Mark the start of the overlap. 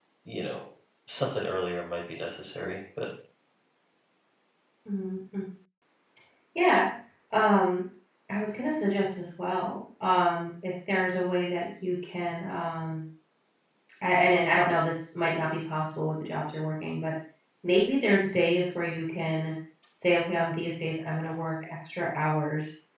none

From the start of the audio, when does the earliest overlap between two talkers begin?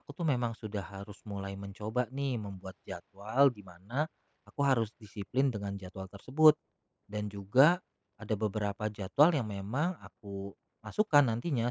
none

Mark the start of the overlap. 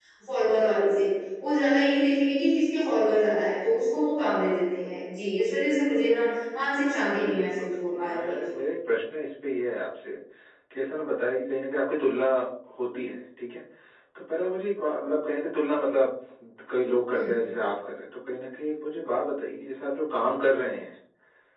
7.1 s

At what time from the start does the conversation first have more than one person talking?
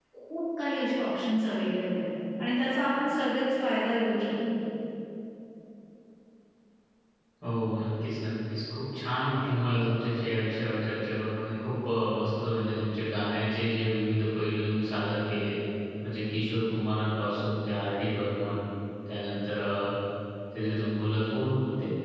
none

